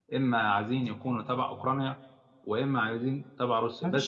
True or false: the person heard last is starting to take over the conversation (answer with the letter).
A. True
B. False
A